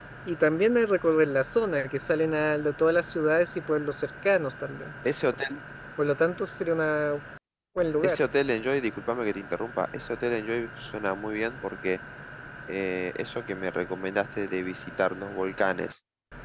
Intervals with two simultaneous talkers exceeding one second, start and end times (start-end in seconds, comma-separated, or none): none